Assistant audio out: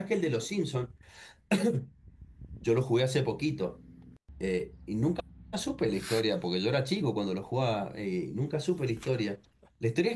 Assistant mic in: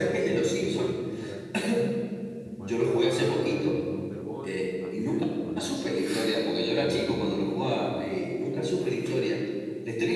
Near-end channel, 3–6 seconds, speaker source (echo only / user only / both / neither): both